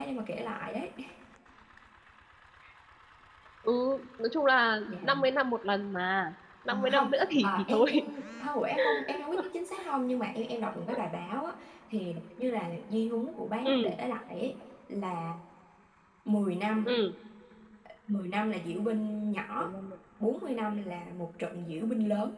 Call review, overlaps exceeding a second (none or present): present